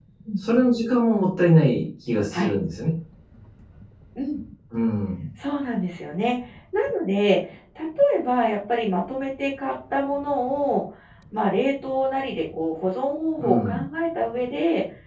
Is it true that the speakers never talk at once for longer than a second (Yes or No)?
Yes